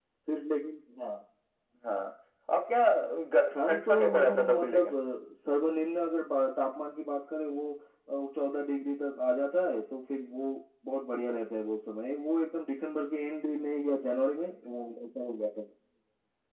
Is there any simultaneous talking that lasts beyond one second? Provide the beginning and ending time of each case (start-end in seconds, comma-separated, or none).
3.7-4.9